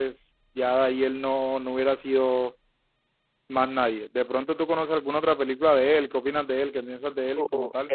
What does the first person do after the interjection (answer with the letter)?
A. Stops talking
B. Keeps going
A